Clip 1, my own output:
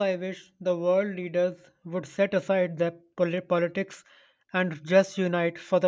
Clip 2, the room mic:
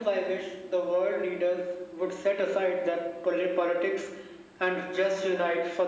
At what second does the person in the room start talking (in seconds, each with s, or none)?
none